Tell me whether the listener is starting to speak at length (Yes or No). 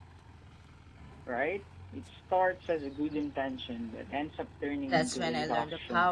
Yes